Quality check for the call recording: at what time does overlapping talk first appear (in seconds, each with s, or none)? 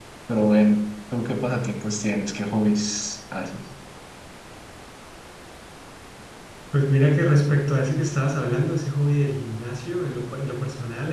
none